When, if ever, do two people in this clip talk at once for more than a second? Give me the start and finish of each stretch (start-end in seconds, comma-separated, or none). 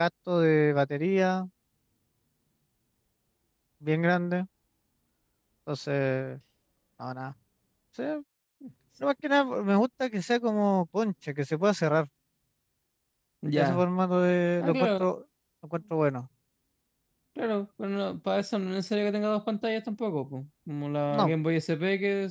none